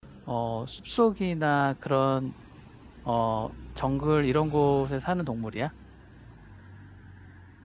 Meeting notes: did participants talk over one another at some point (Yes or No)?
No